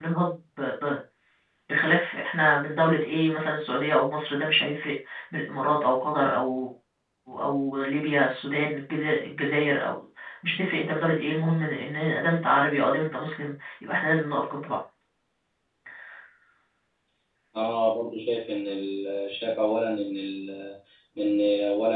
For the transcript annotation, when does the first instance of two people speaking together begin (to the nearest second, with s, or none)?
none